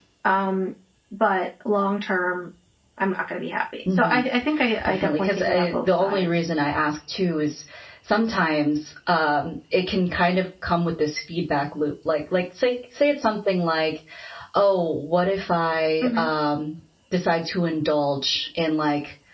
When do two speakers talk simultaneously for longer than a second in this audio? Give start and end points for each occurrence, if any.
4.8-6.4

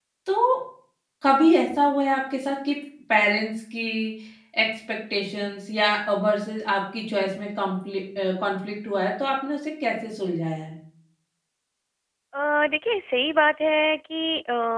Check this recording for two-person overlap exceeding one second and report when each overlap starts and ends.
none

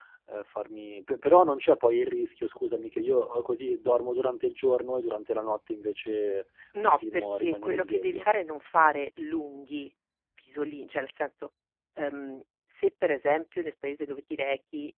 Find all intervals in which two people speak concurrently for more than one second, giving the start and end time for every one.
6.8-8.3

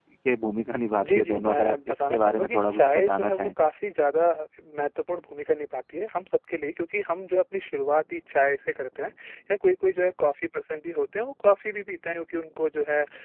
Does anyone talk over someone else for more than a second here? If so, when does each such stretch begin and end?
1.0-3.5

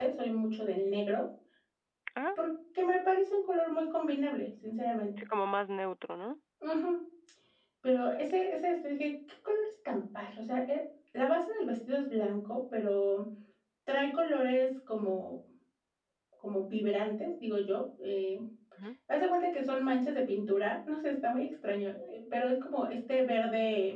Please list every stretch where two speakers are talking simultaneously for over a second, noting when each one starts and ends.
none

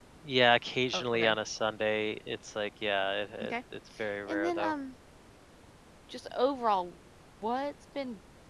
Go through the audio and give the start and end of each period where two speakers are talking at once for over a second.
none

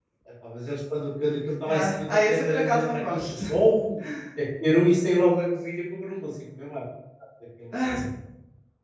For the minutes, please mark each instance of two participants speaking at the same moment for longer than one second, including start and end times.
1.7-3.4

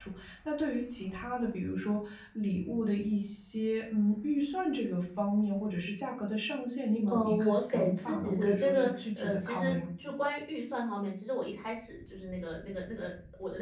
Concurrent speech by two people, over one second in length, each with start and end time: 7.0-9.9

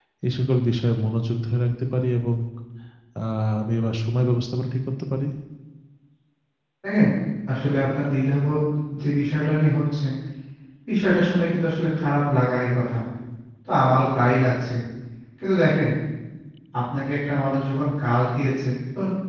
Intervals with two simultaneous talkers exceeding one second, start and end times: none

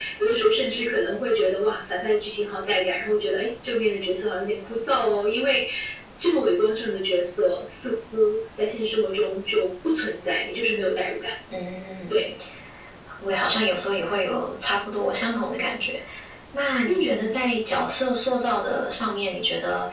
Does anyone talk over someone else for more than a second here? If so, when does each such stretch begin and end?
none

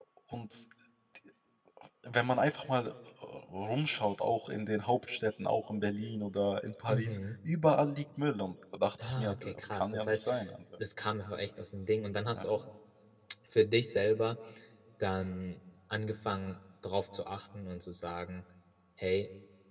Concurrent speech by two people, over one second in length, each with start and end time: 9.0-10.3

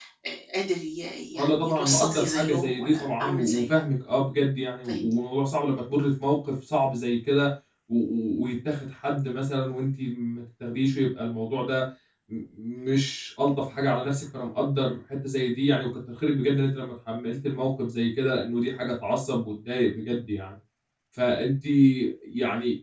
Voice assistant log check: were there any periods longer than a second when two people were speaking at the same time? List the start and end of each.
1.4-3.7

